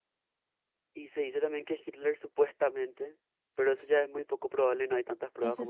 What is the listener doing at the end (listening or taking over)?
taking over